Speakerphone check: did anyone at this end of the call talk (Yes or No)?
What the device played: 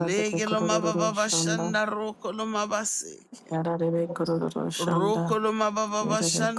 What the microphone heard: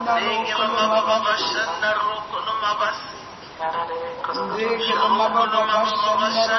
Yes